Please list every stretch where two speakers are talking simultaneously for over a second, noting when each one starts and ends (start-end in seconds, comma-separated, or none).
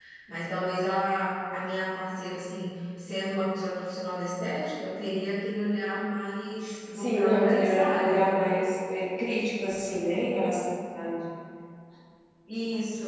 6.9-8.3